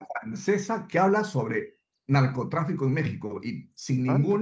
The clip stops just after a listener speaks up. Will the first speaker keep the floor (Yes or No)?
Yes